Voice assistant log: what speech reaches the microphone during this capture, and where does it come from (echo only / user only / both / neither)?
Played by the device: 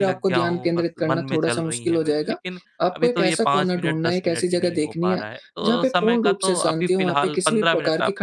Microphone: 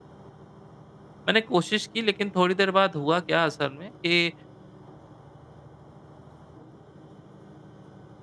user only